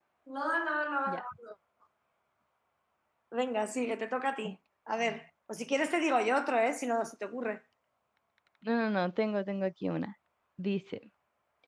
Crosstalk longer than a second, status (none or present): none